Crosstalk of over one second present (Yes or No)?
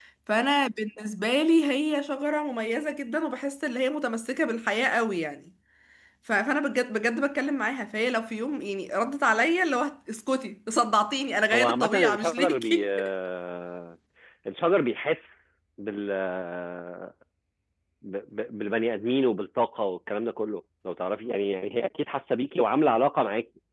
Yes